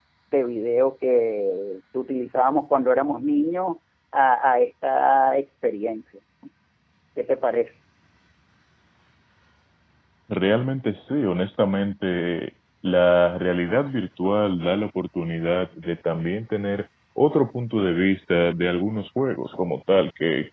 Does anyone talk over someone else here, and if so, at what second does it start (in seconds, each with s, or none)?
none